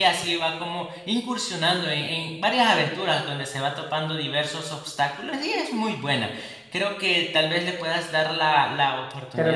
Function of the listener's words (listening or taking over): taking over